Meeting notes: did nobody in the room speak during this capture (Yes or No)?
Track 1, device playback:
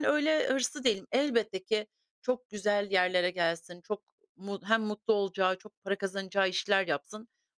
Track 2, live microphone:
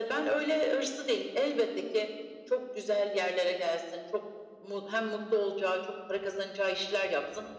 Yes